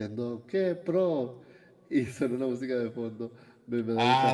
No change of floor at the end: Yes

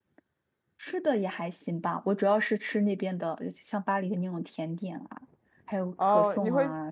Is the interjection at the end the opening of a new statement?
Yes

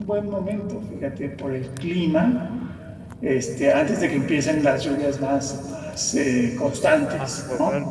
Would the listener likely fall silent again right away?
No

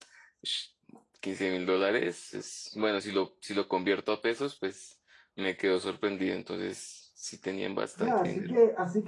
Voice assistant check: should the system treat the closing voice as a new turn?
Yes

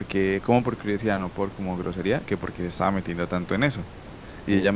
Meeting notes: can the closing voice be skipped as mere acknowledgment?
Yes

